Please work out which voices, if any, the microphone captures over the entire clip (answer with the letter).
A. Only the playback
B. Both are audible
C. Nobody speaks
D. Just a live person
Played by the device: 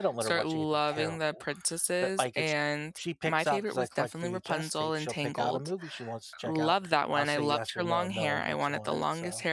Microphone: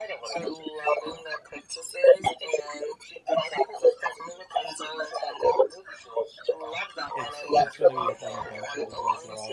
B